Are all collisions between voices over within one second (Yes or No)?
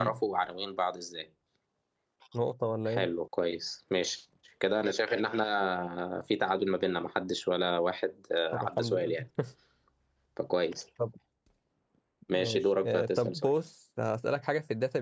No